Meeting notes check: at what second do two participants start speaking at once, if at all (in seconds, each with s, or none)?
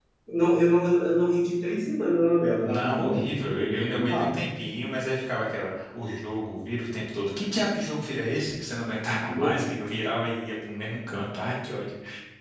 2.6 s